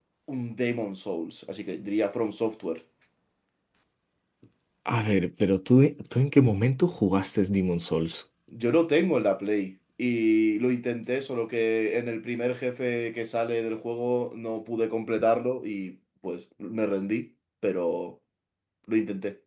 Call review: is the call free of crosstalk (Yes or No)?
Yes